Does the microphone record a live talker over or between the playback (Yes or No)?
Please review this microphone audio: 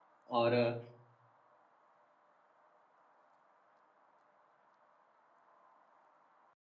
Yes